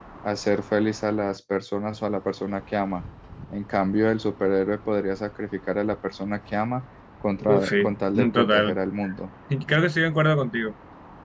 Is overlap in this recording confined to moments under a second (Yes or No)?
No